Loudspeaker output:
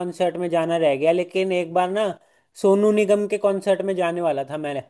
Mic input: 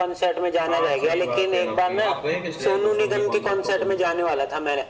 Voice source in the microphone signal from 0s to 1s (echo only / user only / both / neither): both